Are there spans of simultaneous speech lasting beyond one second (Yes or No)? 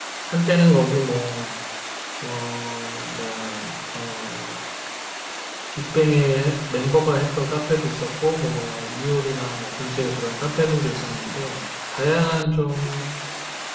No